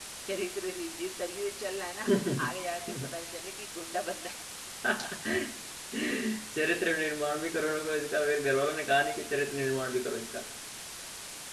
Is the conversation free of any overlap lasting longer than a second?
Yes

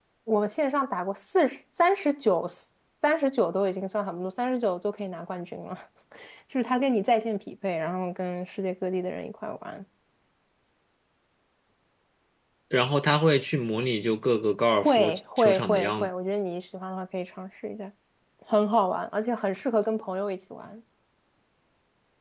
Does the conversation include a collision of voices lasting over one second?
Yes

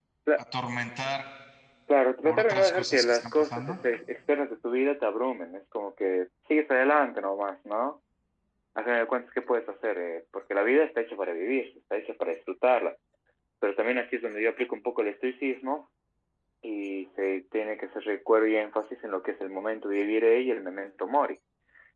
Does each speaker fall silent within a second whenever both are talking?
No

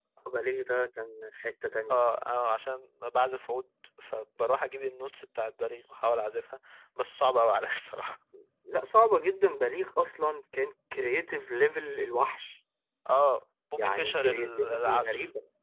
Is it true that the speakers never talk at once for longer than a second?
No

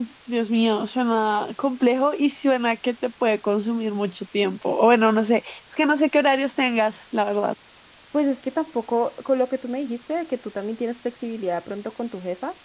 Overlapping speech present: No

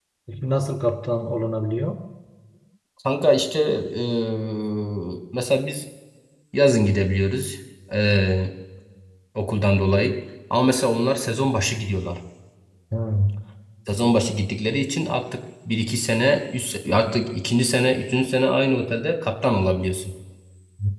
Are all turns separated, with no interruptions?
Yes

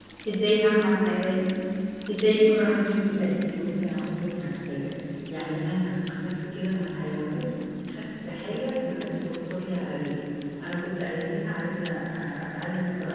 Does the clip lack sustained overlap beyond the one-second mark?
Yes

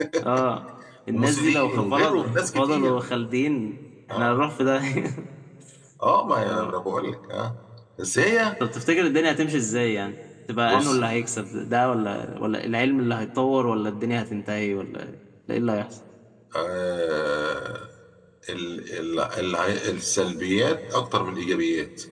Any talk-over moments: Yes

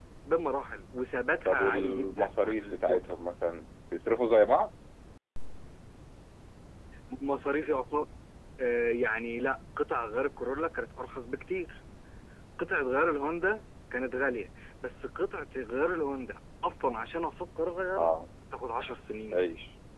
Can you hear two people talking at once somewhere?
Yes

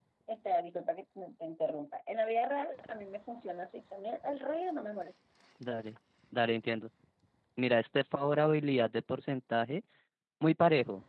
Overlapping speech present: No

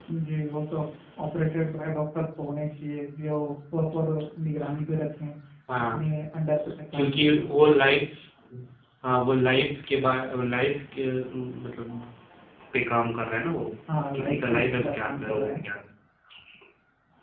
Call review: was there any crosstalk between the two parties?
Yes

